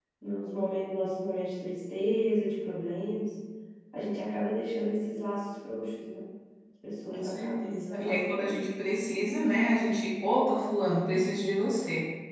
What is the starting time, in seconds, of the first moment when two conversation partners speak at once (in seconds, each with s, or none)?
7.1 s